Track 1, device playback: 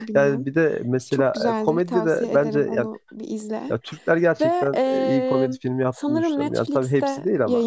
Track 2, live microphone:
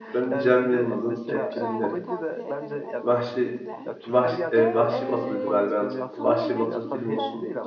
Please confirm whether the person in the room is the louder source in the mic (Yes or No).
Yes